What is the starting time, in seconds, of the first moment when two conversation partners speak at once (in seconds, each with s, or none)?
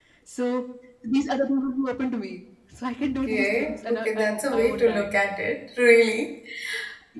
3.0 s